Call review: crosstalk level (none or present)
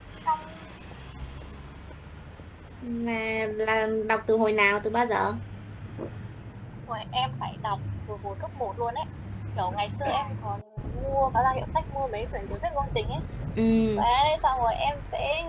none